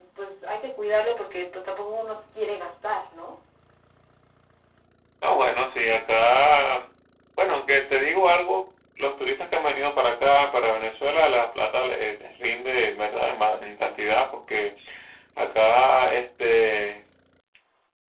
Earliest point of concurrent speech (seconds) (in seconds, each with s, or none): none